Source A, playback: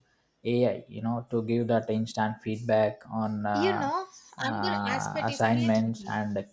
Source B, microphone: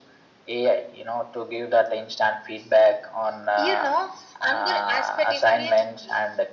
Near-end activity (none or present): none